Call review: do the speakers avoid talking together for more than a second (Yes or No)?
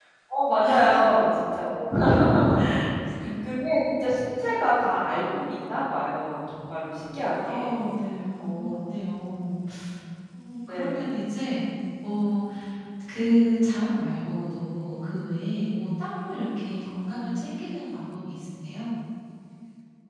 Yes